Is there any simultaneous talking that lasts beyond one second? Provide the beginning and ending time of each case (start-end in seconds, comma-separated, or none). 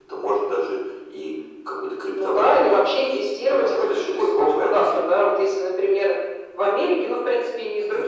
2.2-5.0